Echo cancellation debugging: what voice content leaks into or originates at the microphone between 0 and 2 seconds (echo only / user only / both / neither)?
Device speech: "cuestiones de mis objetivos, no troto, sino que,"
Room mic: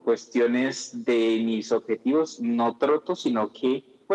echo only